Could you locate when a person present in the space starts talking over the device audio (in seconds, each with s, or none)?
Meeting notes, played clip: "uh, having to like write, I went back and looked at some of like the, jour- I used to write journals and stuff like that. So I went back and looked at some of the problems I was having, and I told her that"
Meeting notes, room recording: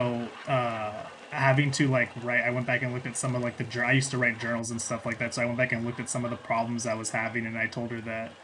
none